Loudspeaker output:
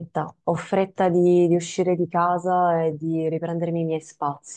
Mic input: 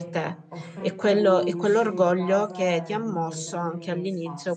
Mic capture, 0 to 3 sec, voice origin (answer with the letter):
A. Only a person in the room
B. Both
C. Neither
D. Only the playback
B